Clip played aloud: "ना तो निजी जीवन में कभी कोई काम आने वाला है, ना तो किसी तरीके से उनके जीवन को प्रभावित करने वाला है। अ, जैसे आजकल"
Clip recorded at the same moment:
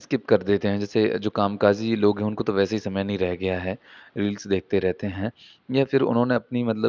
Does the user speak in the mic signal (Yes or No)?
Yes